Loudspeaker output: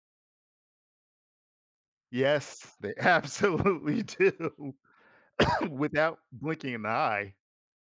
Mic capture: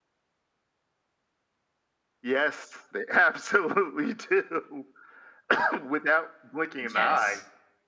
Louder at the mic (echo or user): echo